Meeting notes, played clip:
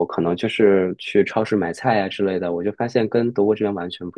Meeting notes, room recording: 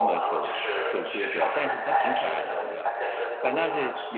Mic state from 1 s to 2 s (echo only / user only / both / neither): both